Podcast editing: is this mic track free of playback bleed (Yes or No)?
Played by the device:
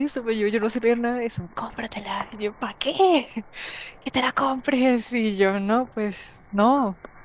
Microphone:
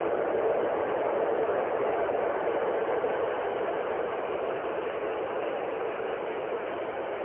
Yes